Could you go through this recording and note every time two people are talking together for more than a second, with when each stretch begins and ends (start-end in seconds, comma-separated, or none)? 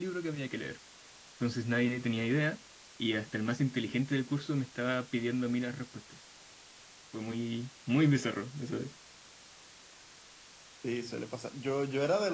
none